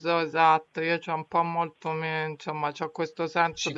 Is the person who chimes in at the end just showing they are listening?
Yes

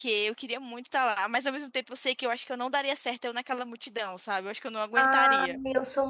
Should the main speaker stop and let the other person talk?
Yes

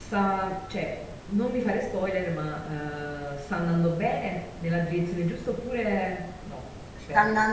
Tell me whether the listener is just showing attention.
No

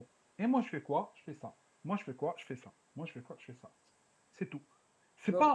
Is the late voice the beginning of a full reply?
No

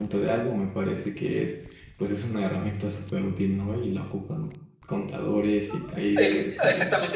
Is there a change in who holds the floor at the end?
Yes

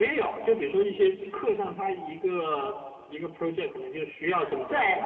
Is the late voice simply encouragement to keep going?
No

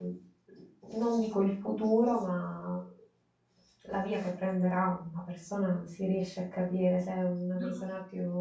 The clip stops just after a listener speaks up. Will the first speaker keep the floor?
Yes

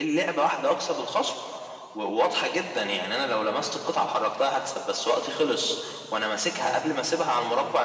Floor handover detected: No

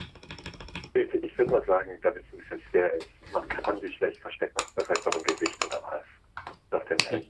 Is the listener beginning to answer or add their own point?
Yes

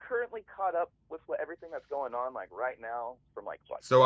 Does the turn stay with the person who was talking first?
No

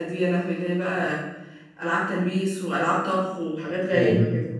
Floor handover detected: Yes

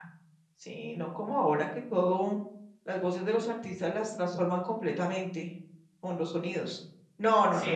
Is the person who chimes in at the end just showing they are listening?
No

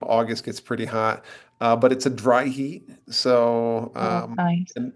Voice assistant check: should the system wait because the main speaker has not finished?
Yes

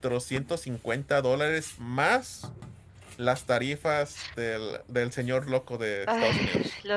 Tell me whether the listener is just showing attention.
No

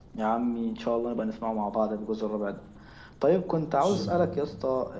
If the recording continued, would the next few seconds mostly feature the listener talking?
No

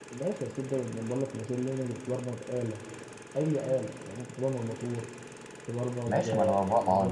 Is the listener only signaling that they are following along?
No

